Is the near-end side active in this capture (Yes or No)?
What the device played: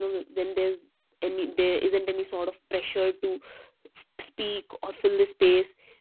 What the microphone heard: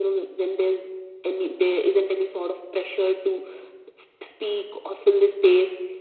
No